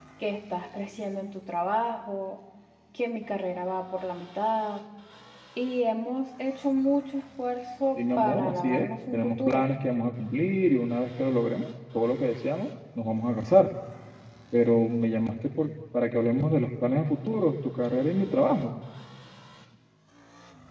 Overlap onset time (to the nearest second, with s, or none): 8 s